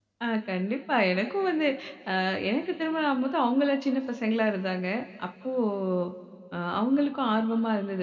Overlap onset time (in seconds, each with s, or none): none